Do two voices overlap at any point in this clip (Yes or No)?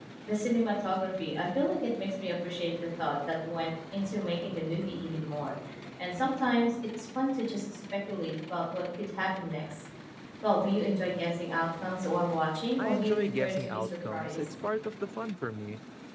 Yes